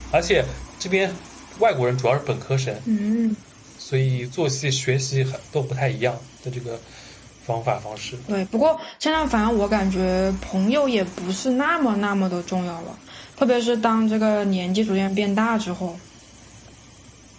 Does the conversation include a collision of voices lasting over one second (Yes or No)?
No